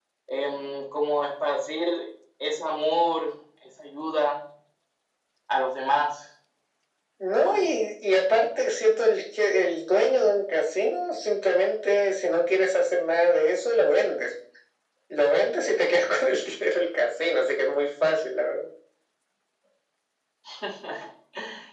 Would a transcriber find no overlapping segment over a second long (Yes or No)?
Yes